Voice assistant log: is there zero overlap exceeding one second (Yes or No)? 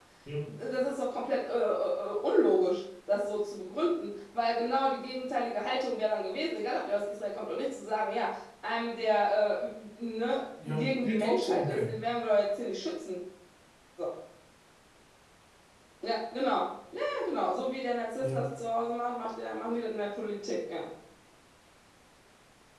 No